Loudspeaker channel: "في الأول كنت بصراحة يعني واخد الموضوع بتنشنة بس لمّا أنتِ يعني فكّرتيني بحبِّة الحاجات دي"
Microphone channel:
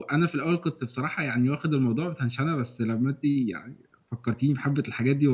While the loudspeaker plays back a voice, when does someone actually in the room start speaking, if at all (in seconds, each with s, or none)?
none